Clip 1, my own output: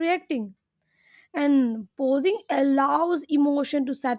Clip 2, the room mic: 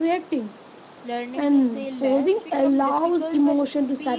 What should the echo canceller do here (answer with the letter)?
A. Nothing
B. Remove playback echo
B